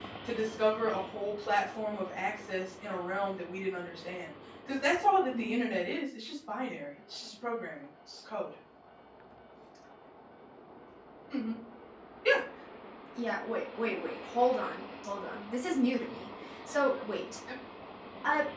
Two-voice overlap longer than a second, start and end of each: none

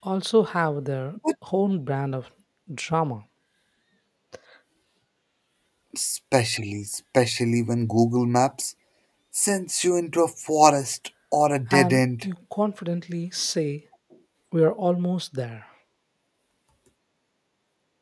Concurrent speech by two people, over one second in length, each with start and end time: none

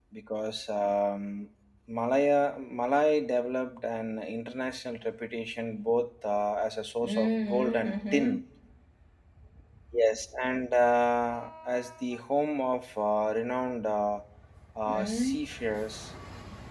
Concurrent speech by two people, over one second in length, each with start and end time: 7.0-8.4

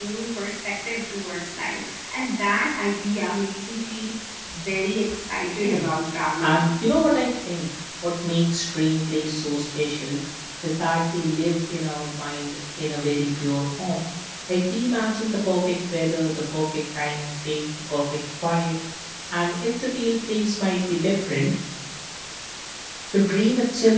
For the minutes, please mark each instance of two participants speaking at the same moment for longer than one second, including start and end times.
none

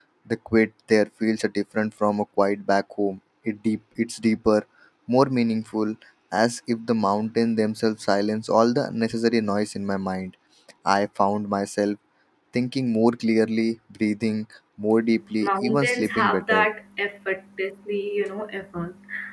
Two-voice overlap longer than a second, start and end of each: 15.4-16.7

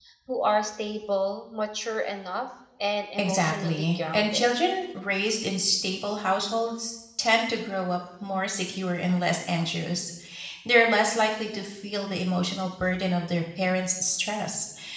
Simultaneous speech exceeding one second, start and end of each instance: 3.2-4.5

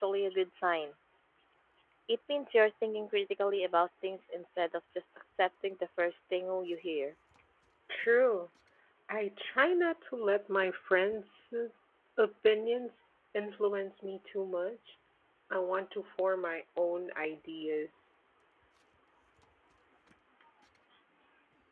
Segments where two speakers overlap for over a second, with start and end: none

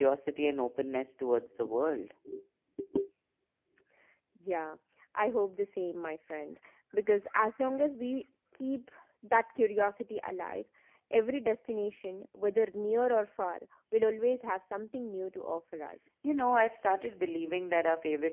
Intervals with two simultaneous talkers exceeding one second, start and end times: none

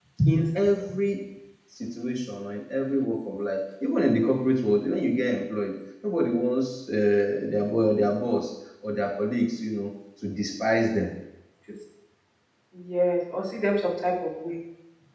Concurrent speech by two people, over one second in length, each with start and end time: none

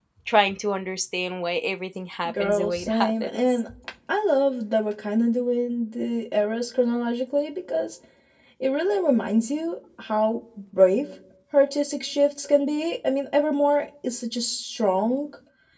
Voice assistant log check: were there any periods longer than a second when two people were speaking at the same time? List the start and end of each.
2.3-3.6

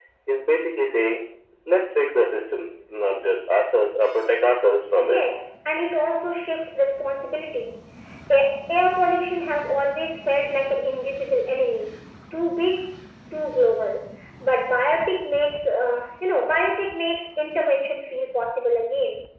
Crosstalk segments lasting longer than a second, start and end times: none

